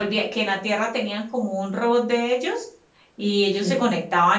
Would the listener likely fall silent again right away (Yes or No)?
Yes